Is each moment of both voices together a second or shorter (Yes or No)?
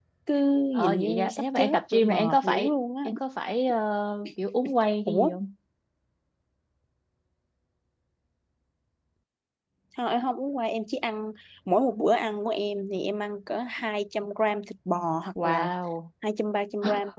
No